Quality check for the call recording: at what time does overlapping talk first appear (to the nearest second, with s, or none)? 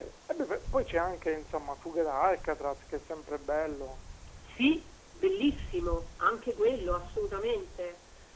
none